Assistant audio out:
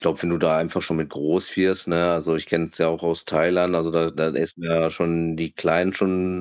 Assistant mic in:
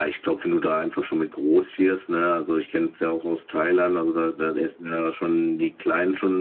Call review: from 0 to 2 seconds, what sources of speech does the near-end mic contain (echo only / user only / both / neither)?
echo only